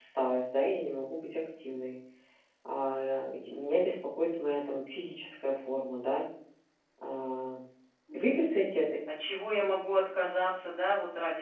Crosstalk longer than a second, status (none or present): none